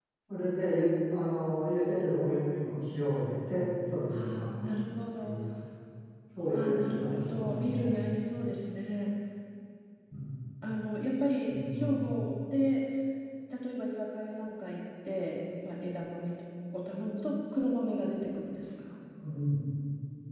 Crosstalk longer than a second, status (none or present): present